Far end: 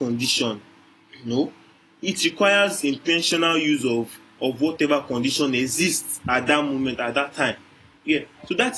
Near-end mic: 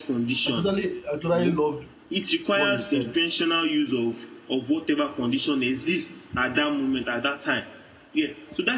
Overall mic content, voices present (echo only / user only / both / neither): both